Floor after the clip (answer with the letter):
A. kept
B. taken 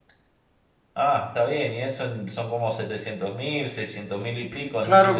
B